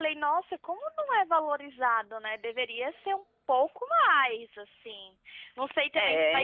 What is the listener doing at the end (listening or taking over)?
listening